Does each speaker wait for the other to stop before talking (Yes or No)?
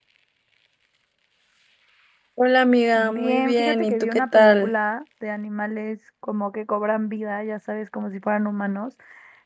No